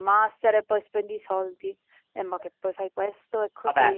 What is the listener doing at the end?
taking over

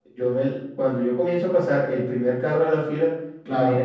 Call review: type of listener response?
listening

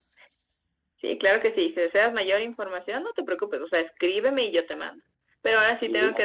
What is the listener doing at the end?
listening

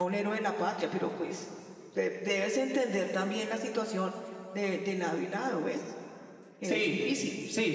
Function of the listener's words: taking over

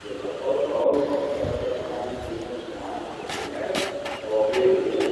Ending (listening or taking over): listening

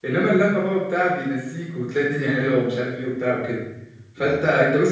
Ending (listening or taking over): listening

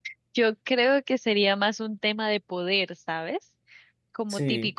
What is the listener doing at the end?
listening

